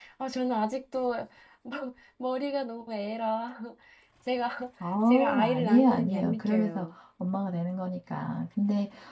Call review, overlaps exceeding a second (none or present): present